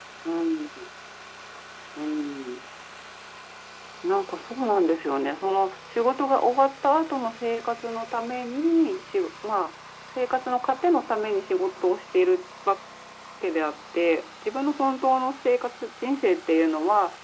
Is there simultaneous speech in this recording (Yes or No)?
No